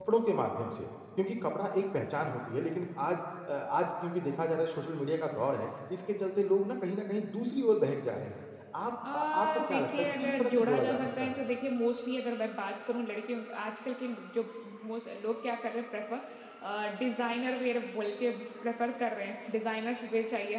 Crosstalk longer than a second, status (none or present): present